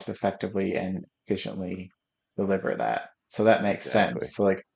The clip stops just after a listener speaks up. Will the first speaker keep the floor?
Yes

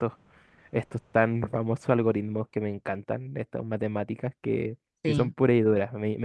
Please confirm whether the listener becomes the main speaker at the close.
No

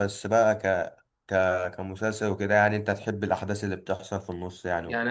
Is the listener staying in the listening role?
No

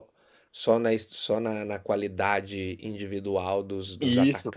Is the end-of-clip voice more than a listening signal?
Yes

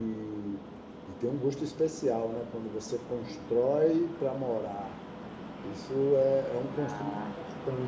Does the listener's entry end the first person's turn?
No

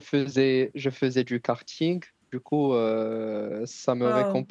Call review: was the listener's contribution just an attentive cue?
Yes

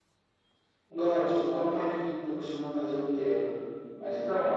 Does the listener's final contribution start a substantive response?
Yes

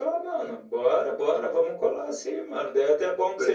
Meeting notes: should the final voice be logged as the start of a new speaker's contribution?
No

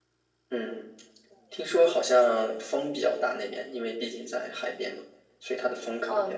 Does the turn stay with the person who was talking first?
No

